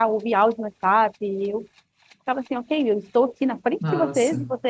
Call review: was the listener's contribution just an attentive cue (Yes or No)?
Yes